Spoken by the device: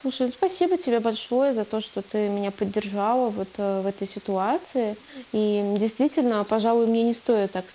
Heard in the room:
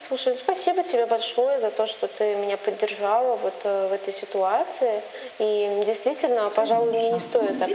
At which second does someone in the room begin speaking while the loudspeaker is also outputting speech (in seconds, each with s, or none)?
6.5 s